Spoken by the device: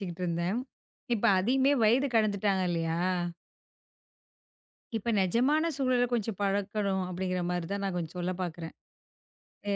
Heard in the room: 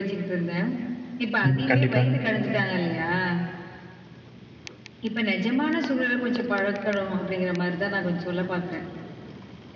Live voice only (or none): ம். கண்டிப்பாங்க.